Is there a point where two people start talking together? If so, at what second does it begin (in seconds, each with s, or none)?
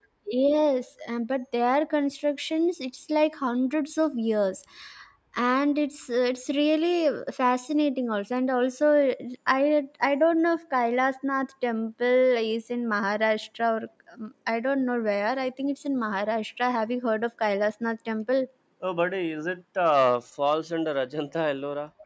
none